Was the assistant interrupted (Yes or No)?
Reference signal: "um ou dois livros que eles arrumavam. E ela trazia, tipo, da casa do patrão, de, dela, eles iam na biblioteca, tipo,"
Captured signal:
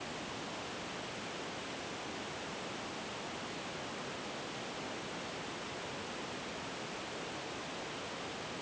No